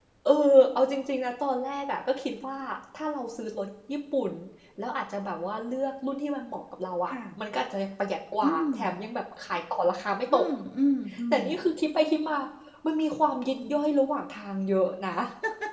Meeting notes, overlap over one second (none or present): none